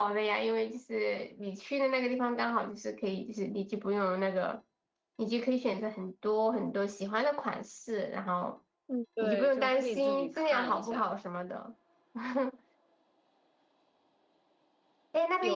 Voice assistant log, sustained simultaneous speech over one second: present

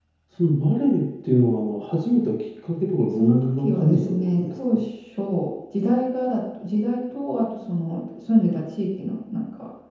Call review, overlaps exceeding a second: present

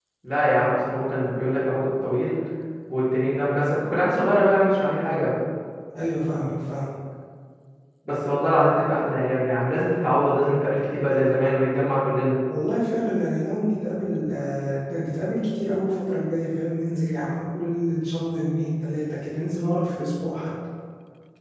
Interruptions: none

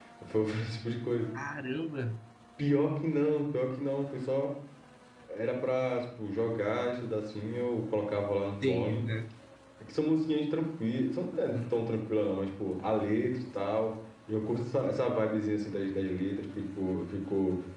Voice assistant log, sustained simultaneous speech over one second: none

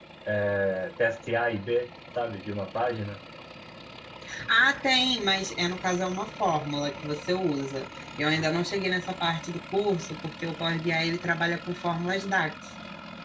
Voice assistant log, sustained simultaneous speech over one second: none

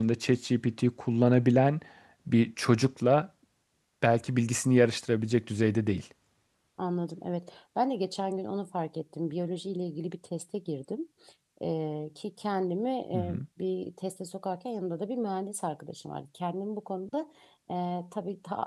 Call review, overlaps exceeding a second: none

